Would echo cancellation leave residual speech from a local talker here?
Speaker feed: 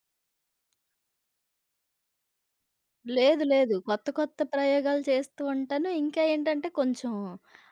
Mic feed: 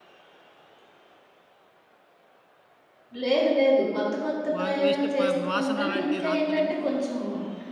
Yes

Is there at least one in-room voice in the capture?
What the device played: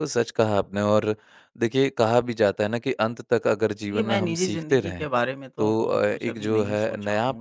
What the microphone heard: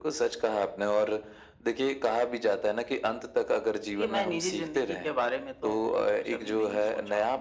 No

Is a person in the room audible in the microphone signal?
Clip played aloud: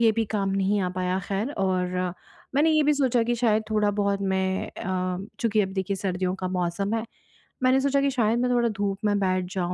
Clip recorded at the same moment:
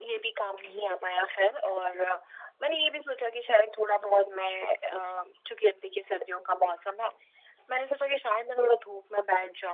No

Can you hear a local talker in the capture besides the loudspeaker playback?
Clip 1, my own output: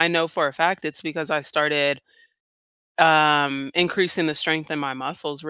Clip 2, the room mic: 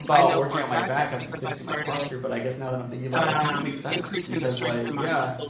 Yes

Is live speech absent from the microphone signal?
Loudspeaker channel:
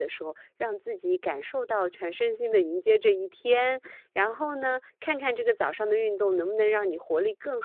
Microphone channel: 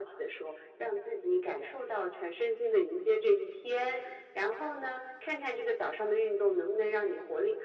Yes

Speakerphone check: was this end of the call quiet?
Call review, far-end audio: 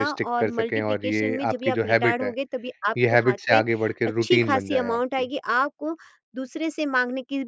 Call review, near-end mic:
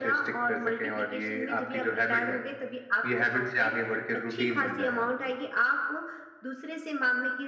Yes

